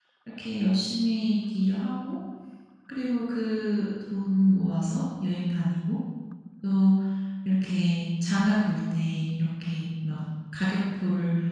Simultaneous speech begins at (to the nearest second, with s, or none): none